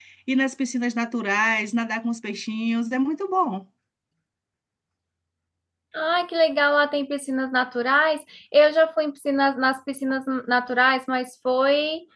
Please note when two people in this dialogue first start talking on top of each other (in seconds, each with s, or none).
none